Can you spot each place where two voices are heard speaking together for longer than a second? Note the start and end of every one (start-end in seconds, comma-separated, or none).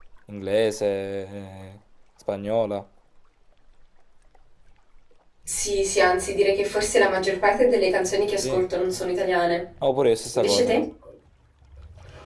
none